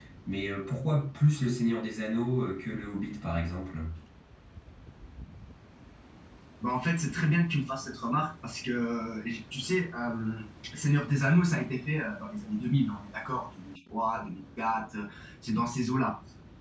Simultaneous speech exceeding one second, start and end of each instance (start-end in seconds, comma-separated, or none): none